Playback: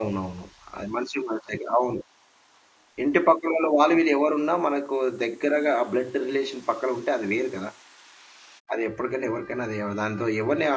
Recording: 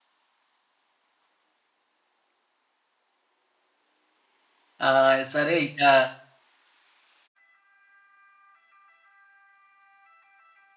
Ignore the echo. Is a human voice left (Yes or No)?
Yes